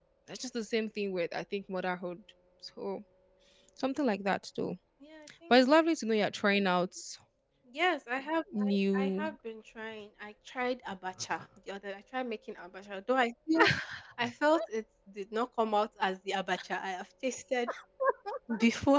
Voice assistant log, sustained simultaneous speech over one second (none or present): none